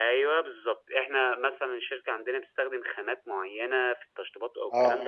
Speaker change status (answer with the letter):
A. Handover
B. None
B